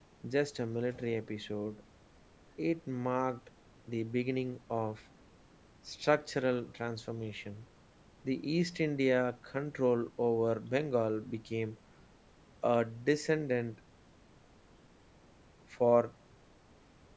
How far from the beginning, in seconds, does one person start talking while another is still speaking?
none

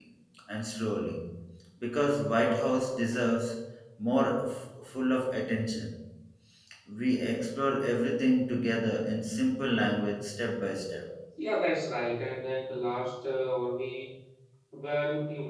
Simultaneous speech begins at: none

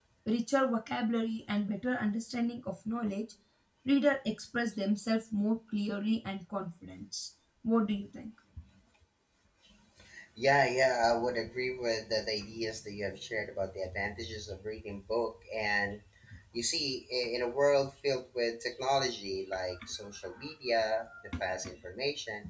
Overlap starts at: none

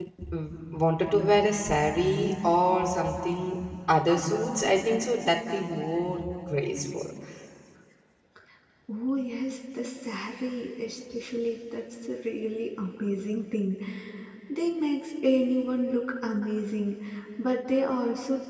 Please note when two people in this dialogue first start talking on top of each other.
none

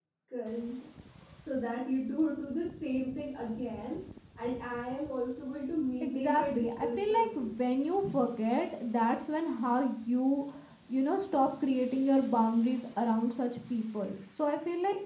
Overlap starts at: 6.0 s

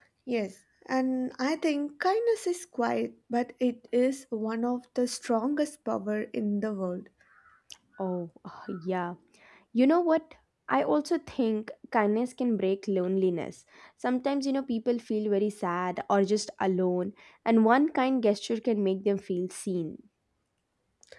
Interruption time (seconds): none

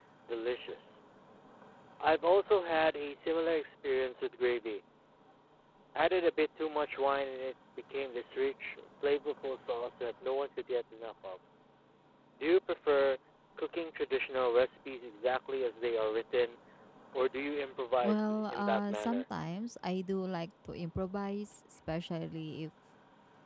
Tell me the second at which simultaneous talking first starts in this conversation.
18.0 s

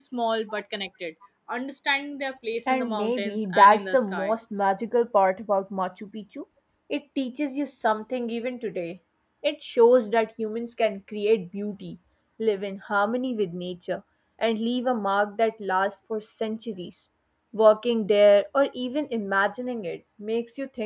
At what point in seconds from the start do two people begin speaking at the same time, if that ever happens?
2.7 s

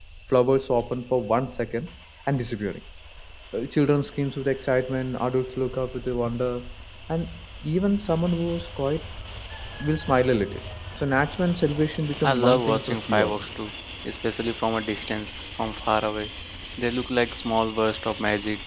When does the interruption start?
12.2 s

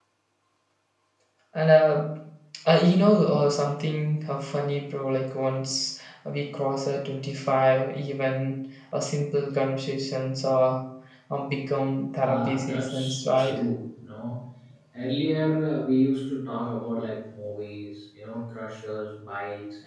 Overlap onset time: 12.2 s

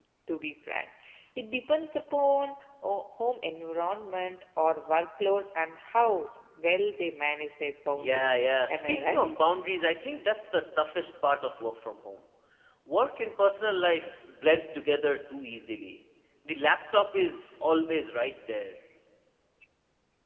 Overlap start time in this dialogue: 8.0 s

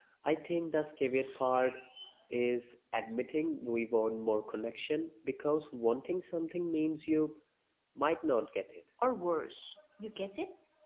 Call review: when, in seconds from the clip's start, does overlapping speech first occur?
none

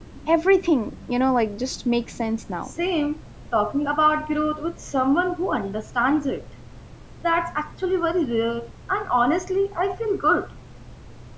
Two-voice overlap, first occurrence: none

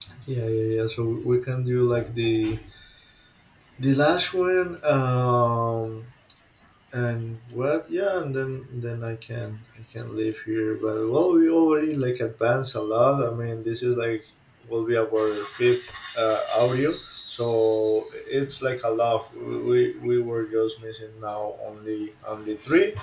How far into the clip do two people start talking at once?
none

